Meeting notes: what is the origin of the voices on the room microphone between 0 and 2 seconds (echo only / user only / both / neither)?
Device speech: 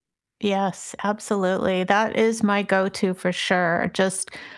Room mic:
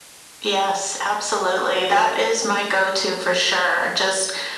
echo only